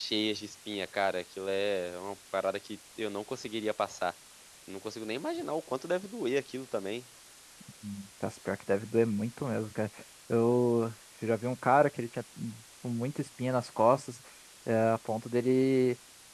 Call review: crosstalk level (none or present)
none